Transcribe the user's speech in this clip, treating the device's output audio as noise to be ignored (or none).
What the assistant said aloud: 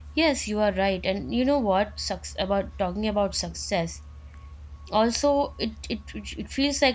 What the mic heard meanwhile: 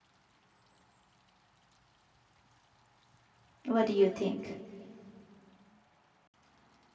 What do you think?